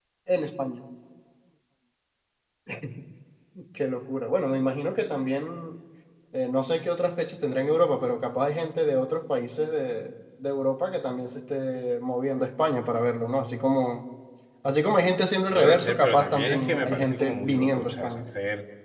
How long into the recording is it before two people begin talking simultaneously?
15.6 s

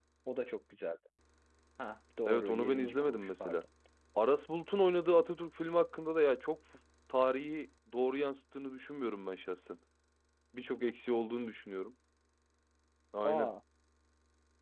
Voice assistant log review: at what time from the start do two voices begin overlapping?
2.2 s

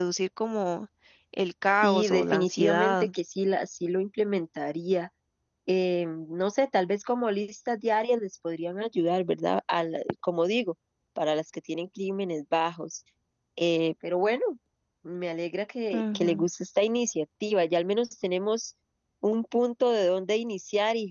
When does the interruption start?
1.8 s

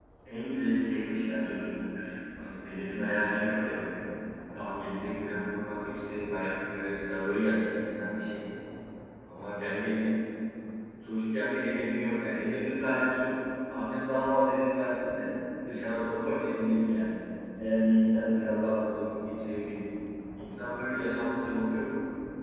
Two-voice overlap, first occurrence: none

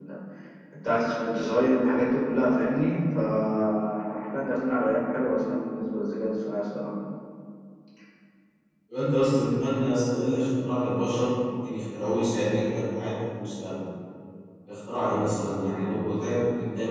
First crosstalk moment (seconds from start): none

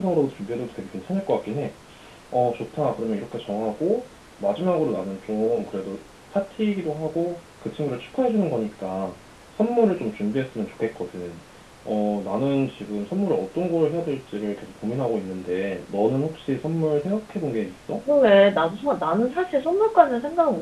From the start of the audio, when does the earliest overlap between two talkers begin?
none

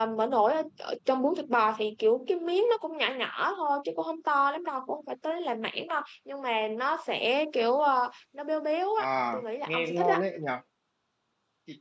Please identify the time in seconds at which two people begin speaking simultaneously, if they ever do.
9.0 s

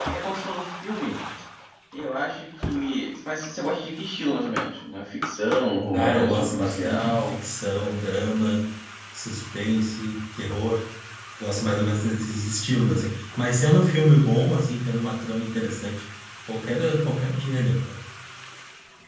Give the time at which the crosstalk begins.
5.9 s

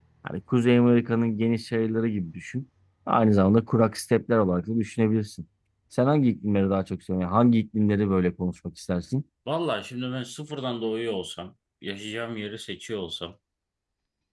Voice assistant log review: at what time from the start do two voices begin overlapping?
none

